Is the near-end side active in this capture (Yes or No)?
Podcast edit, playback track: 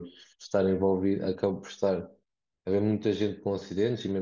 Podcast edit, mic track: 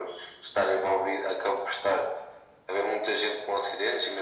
No